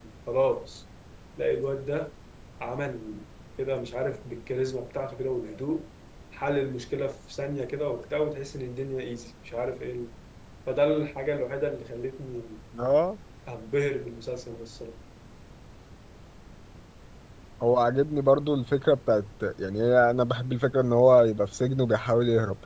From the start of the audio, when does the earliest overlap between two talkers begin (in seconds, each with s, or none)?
none